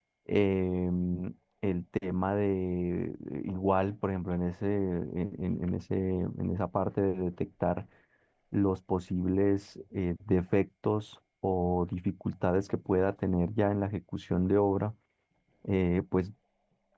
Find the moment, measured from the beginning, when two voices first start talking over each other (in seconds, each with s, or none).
none